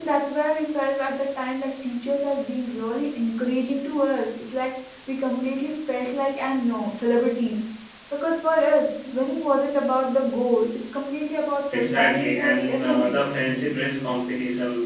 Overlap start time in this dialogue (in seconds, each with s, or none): 11.7 s